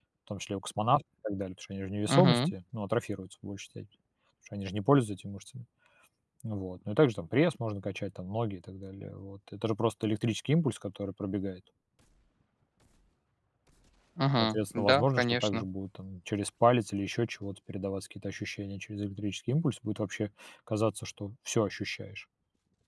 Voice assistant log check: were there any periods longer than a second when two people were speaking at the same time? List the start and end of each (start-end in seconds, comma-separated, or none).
14.4-15.7